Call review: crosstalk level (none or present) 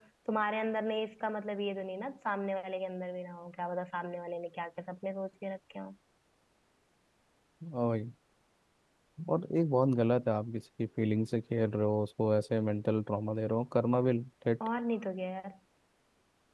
none